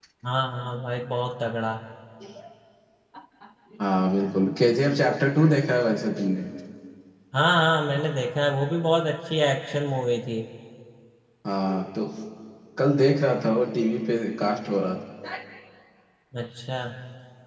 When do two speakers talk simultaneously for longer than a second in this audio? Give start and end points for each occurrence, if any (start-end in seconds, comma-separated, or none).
none